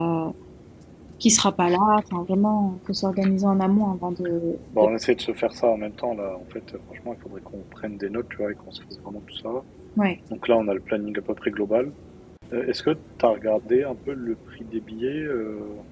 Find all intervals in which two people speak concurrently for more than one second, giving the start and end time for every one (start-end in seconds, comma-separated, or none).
none